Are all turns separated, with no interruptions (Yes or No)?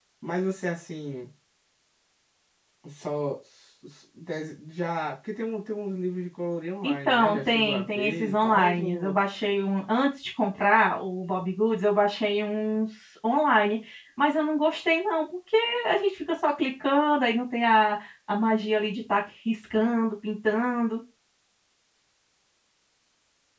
No